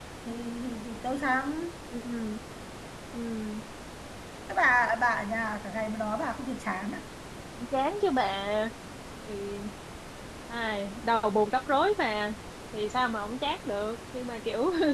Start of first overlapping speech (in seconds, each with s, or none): none